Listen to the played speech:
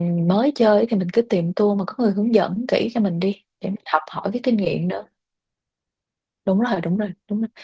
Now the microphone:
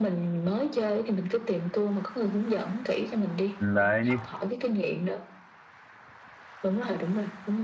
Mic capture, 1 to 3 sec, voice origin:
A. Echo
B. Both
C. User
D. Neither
A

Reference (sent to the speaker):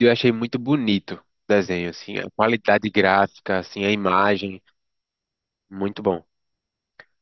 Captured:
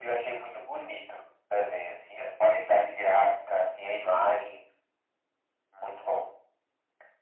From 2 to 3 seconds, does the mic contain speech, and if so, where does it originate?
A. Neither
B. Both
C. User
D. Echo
D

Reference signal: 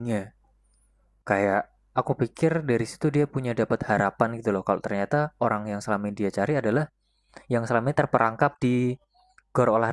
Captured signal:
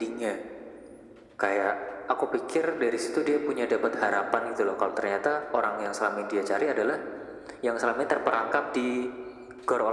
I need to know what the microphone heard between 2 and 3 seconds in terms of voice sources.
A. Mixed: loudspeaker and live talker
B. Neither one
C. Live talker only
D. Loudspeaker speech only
D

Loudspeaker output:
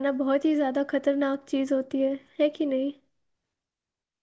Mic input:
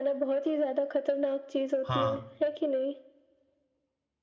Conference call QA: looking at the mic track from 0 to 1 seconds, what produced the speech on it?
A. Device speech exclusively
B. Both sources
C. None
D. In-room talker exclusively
A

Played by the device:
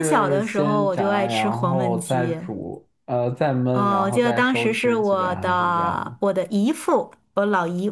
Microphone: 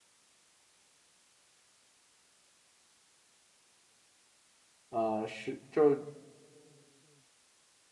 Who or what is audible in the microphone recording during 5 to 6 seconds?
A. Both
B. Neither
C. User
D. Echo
C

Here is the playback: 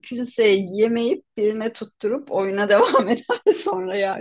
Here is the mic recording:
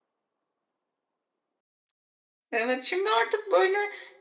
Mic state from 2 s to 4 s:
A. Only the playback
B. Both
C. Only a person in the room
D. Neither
C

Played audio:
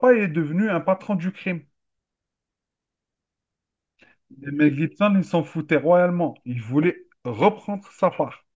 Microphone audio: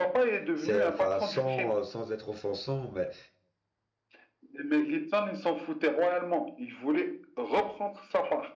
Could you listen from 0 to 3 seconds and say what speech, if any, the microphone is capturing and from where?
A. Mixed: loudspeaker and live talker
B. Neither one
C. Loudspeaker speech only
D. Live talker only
A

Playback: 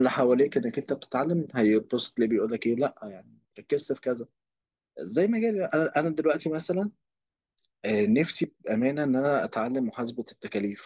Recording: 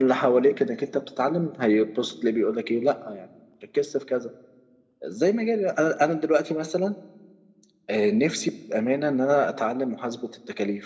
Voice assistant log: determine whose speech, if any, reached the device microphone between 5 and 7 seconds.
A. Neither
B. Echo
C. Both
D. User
B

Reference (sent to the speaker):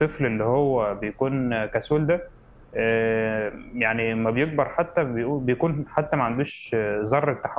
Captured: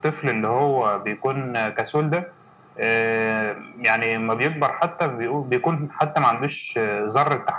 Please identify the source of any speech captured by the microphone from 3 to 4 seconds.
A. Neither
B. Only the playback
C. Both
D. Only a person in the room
B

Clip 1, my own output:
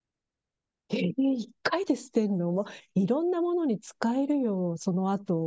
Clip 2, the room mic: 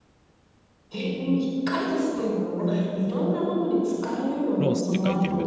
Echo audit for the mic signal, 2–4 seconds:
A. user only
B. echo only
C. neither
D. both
B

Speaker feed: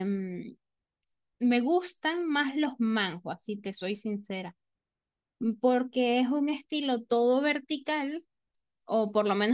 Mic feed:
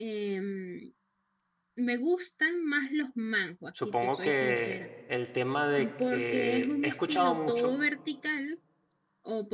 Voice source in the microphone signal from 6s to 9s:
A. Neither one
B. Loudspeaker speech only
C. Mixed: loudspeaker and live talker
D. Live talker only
C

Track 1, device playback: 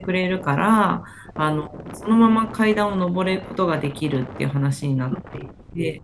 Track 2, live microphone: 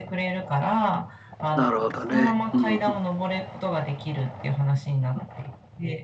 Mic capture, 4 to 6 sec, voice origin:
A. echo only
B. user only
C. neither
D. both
A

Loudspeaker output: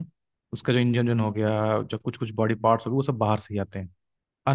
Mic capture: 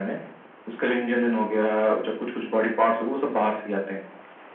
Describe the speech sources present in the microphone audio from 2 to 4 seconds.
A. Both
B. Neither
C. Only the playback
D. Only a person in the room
C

